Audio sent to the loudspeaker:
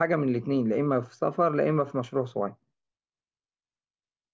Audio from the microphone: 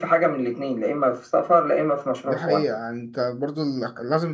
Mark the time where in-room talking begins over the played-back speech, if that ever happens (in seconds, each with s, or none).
2.3 s